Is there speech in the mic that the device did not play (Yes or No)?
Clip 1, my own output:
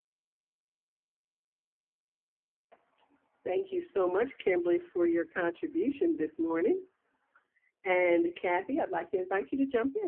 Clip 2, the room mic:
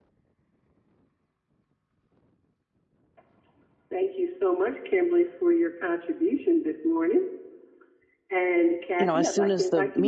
Yes